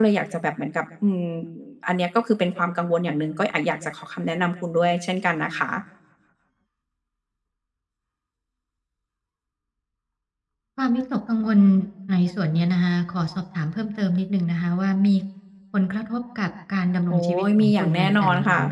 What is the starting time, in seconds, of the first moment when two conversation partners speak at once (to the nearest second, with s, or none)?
17 s